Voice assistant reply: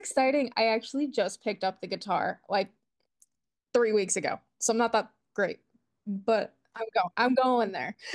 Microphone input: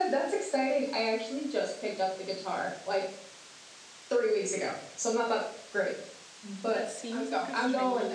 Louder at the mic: echo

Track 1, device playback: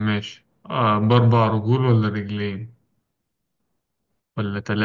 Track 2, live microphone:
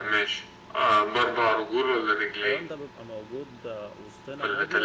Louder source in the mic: echo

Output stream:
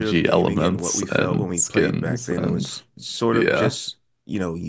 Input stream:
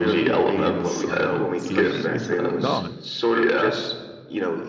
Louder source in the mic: echo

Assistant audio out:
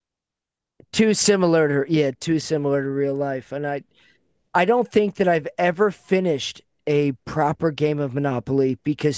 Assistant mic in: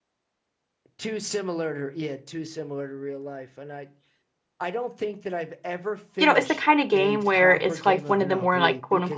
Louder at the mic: user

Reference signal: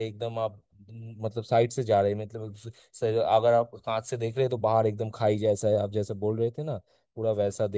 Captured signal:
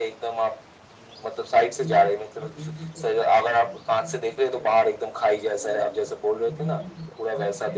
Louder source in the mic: echo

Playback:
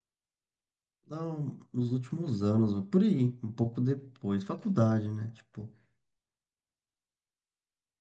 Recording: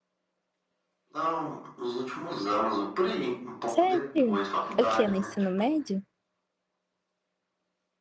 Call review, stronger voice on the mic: user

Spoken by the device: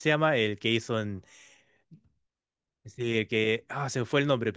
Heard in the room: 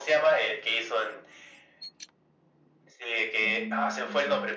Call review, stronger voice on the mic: echo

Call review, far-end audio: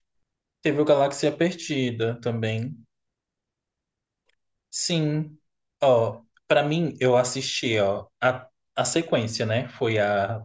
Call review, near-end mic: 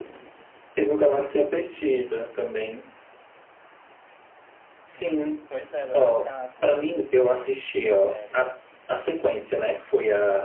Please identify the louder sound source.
echo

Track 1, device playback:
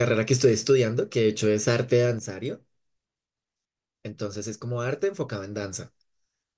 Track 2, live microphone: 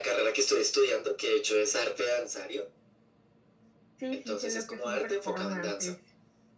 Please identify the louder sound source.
echo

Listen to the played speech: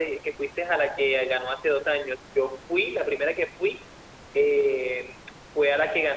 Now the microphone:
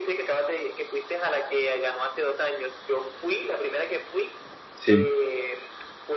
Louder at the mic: user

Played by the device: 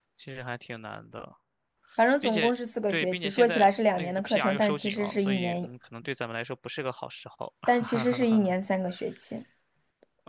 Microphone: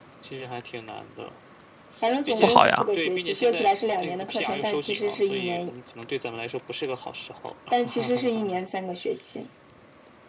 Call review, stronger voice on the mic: user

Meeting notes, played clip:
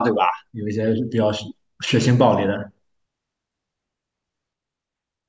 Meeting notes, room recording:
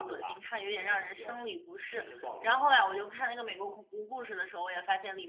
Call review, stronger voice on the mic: user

